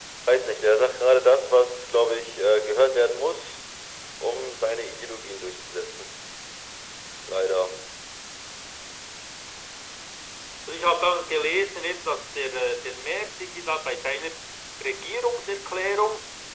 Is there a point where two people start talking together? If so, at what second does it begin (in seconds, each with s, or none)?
none